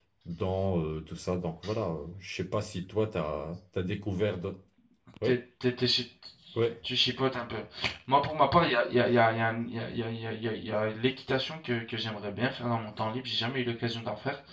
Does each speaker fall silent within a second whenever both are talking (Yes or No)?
Yes